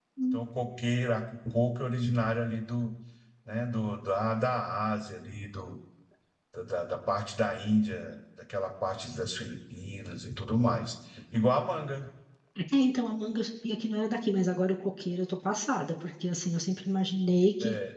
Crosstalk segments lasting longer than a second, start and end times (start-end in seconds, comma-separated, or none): none